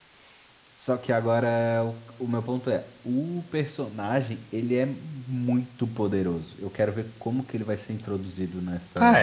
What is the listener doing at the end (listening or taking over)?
taking over